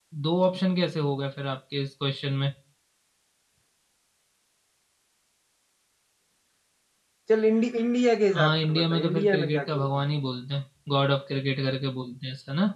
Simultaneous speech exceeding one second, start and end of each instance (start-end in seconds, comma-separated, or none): 8.3-9.9